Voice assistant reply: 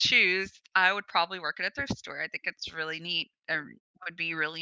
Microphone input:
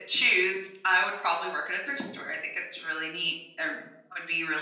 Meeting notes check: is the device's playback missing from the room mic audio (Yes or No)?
No